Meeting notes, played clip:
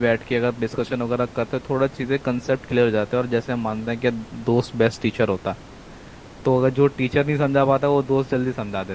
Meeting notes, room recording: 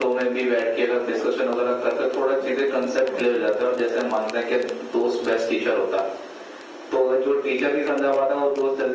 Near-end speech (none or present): present